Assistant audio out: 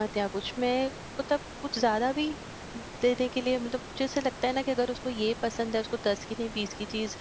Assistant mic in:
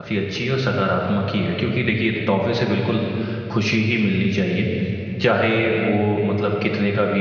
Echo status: none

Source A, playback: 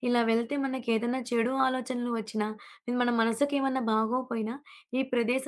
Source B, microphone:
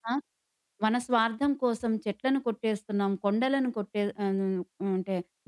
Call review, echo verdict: none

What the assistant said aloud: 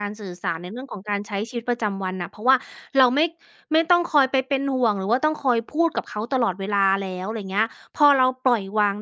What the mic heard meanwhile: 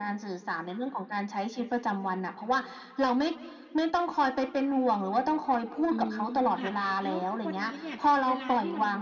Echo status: present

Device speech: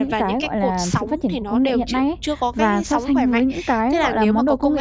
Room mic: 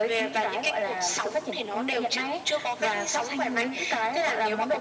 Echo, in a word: present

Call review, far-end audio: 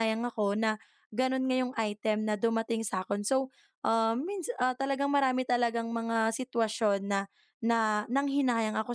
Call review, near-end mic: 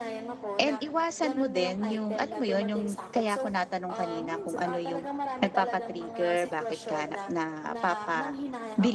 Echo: present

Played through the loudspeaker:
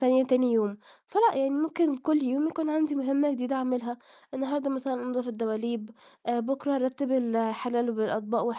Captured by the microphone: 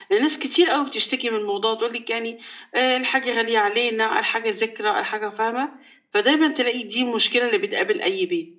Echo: none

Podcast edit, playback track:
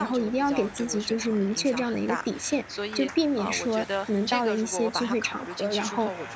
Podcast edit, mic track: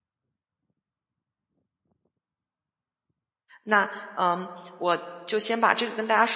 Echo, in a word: none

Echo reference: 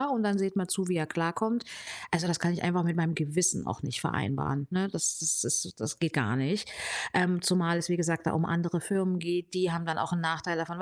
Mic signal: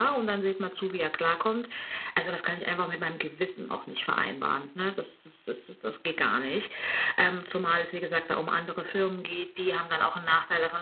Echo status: present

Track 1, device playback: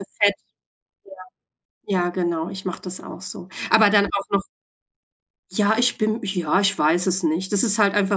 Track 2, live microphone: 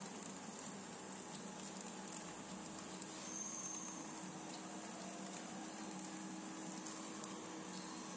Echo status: none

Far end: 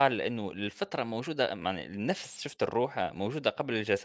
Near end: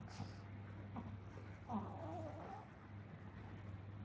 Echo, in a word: none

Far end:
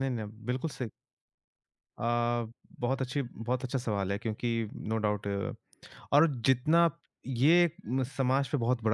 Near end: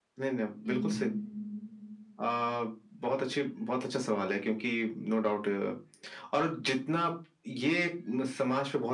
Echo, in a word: present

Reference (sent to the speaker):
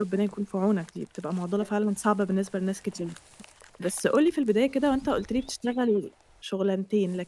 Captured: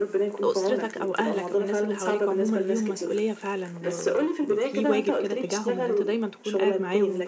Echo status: present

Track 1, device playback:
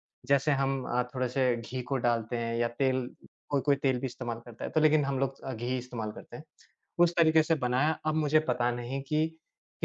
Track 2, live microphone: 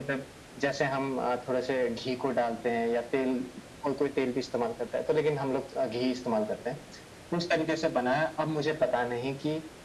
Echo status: present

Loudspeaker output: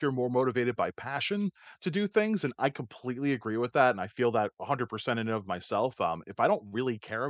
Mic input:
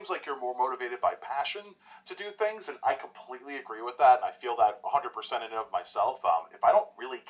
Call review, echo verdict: present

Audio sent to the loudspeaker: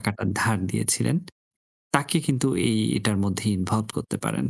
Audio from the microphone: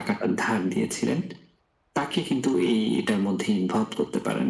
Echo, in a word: present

